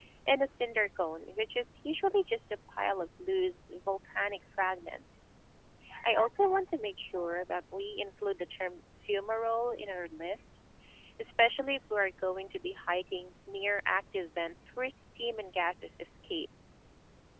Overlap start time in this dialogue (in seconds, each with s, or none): none